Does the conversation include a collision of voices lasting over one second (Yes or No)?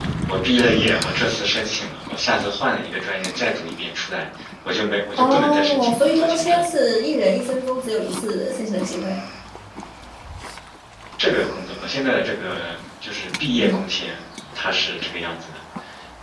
Yes